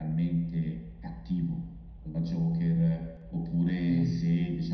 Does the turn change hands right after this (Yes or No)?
No